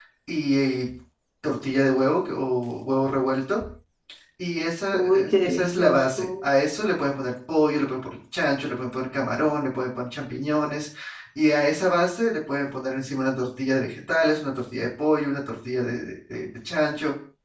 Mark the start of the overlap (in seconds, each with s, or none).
4.9 s